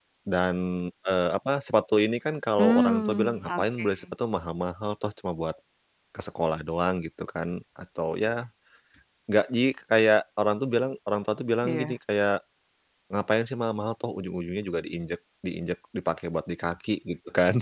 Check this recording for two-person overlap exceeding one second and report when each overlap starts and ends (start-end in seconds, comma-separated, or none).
2.6-3.9